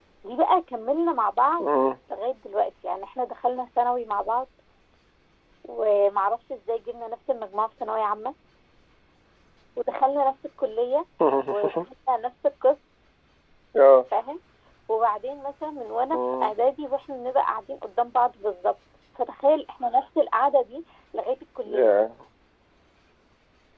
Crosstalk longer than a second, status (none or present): none